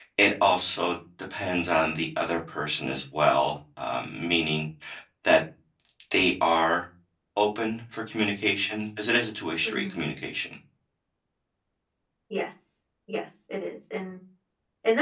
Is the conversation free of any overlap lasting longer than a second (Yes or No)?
Yes